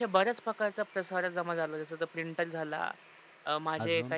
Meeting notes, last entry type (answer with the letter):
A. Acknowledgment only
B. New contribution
A